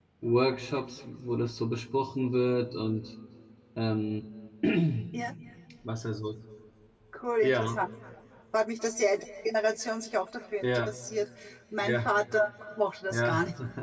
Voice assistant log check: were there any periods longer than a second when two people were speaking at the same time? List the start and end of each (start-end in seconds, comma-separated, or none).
none